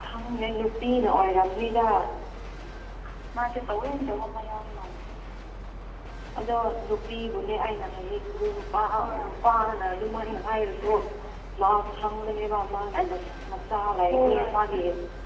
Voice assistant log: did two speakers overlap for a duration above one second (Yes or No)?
No